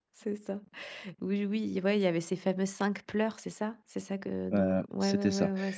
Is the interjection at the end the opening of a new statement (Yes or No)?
Yes